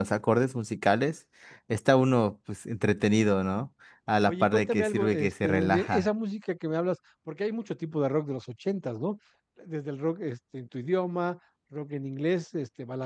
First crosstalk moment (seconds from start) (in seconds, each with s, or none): 4.3 s